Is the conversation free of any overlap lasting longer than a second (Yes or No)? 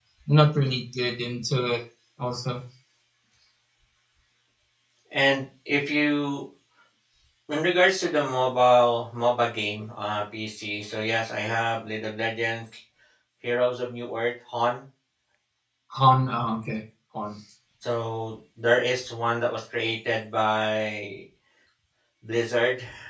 Yes